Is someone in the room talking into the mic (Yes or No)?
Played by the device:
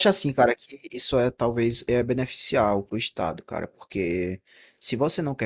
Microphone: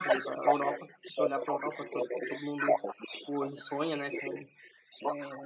Yes